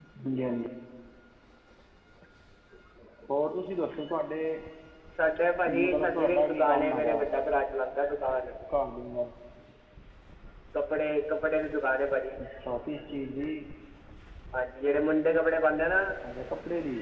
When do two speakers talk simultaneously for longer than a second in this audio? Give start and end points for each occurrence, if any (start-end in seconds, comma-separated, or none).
5.8-7.2